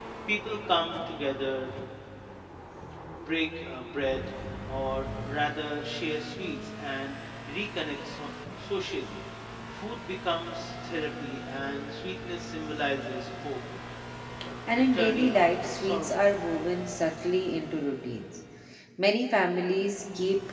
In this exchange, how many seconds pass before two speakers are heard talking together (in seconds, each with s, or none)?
14.7 s